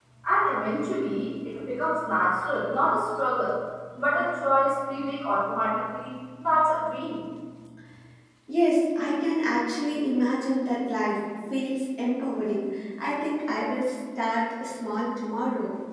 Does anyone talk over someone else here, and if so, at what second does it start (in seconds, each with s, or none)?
none